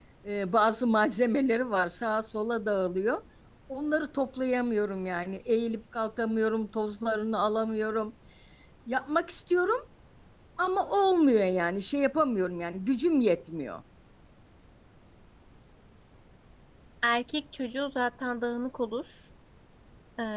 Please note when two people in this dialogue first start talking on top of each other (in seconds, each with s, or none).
none